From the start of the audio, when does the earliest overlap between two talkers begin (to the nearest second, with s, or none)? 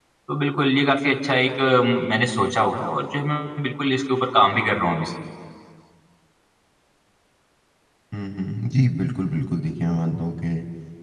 none